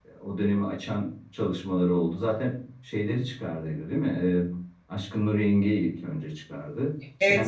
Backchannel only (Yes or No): No